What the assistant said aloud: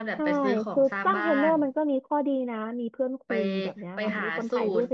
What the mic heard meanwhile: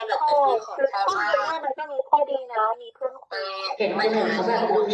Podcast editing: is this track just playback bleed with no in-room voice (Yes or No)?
No